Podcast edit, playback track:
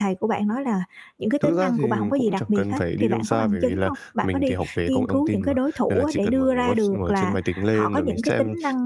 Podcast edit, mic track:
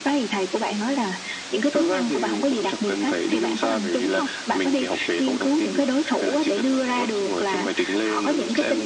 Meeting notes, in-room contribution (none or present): none